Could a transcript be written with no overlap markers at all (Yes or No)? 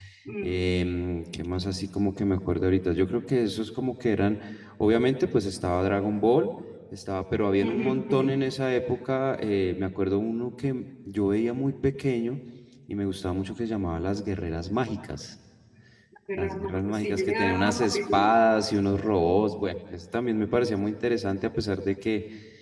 No